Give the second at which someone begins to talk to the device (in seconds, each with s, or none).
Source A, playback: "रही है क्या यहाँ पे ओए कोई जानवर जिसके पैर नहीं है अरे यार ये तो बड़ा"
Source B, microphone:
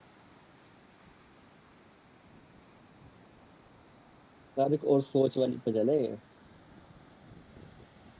4.6 s